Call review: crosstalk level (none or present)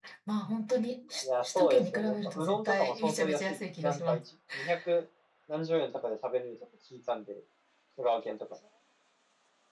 present